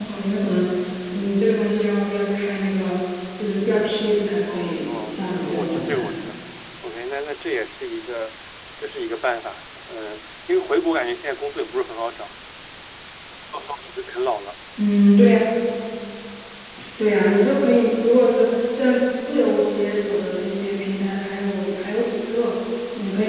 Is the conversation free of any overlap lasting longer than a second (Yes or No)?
No